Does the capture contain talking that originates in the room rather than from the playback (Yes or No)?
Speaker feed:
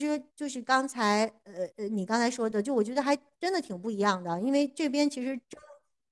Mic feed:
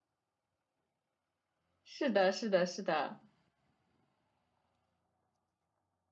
Yes